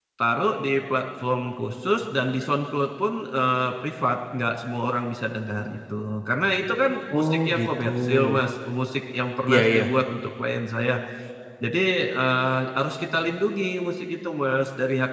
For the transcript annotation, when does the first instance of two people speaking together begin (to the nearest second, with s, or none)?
7 s